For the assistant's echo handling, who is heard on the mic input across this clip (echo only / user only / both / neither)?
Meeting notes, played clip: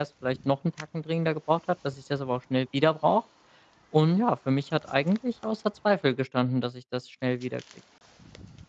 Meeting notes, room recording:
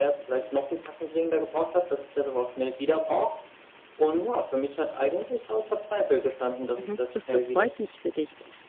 both